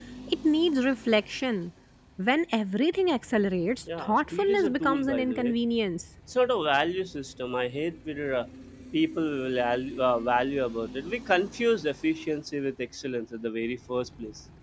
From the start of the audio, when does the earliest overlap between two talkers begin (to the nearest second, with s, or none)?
4 s